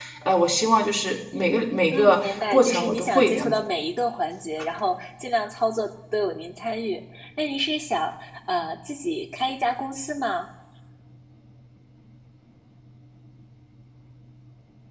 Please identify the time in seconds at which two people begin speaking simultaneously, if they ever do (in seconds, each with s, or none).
1.9 s